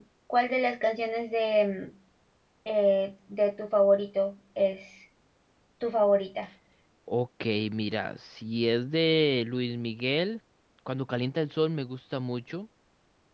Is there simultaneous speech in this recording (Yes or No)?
No